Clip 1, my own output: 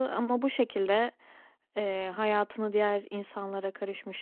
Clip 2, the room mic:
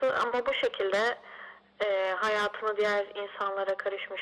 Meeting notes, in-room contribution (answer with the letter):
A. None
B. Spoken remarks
A